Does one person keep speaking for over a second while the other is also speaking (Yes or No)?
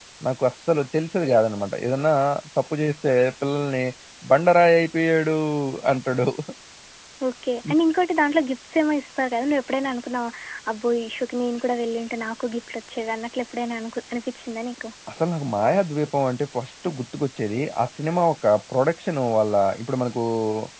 No